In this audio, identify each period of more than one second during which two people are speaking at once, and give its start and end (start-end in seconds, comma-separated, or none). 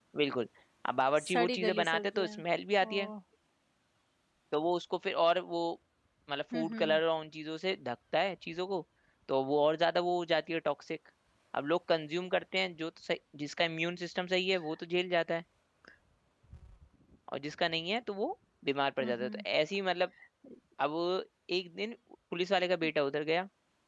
1.2-2.4